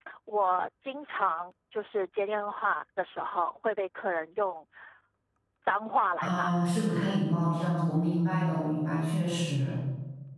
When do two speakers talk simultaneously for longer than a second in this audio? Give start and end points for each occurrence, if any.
none

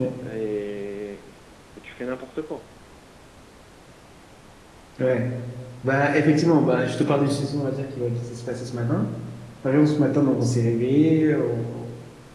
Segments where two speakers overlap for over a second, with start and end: none

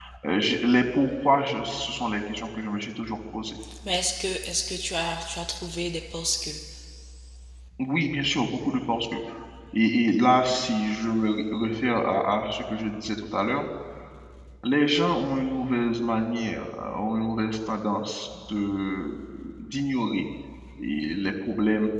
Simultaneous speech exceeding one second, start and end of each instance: none

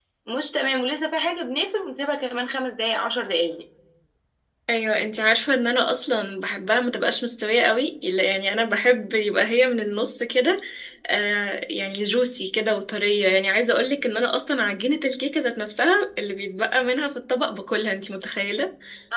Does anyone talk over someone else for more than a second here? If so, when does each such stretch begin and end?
none

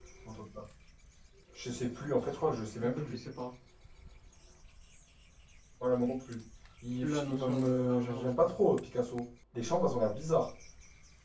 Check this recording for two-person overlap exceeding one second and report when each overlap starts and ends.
7.0-8.6

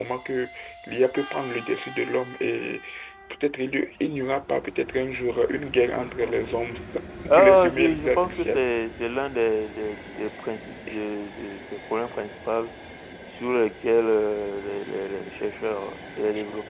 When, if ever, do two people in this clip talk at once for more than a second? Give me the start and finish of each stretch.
7.3-8.6

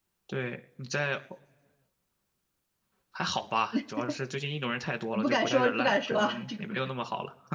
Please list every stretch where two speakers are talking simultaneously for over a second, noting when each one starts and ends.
5.1-6.8

